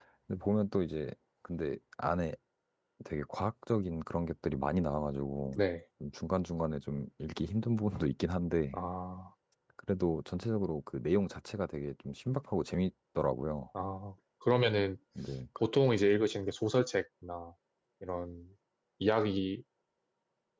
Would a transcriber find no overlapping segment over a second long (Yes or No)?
Yes